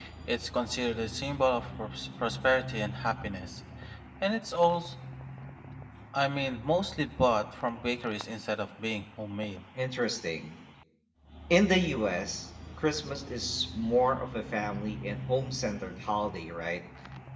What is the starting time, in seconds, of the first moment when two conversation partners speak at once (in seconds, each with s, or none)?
none